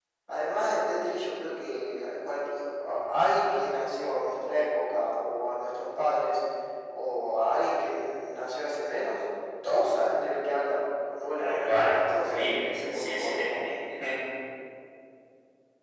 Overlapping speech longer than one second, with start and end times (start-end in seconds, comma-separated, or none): 11.4-13.7